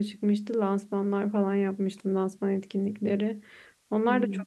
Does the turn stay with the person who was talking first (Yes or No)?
Yes